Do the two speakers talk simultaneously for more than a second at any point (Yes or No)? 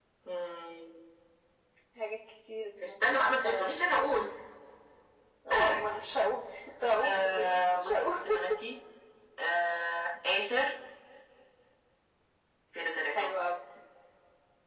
Yes